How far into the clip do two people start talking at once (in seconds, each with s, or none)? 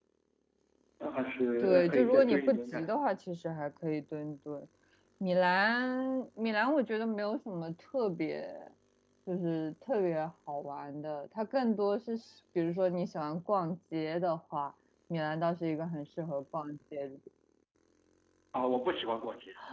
1.6 s